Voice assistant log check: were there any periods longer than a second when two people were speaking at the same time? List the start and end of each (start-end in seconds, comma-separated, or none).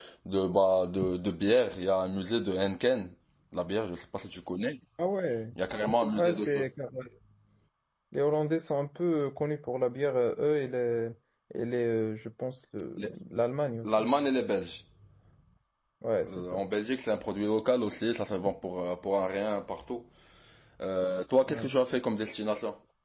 none